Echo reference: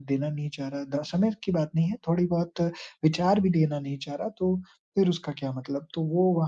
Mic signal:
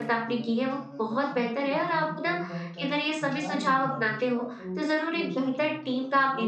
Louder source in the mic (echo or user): user